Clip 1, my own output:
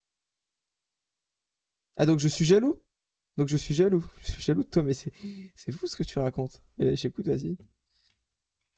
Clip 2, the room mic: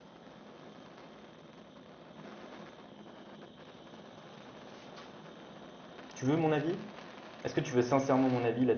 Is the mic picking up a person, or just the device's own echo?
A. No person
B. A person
B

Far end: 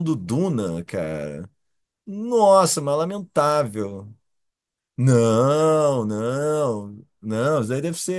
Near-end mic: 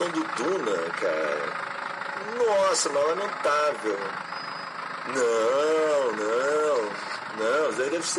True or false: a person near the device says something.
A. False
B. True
A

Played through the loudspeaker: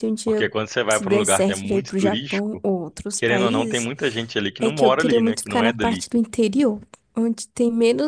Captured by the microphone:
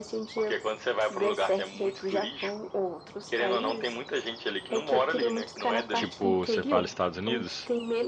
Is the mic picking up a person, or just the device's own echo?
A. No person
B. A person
B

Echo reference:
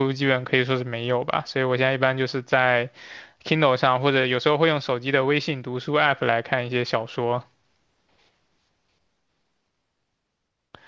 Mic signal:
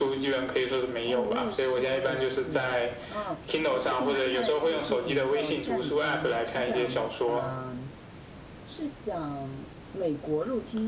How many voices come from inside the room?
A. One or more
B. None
A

